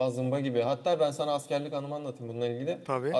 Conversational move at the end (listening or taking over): listening